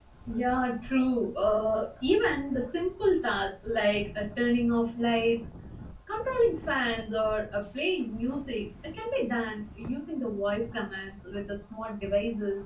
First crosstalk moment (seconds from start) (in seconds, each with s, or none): none